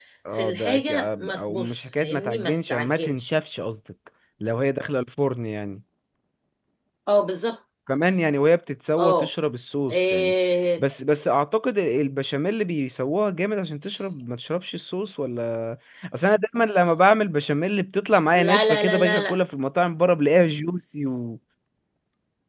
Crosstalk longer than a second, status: present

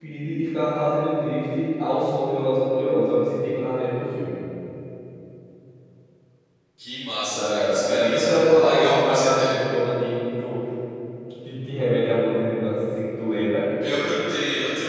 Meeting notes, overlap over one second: present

